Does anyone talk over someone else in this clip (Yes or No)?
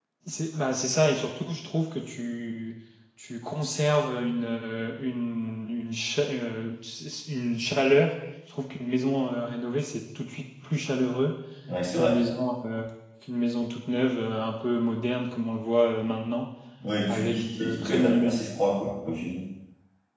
Yes